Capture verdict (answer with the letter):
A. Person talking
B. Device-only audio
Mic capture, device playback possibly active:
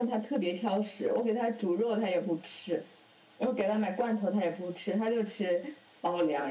B